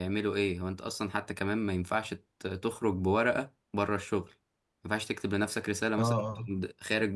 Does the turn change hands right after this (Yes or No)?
No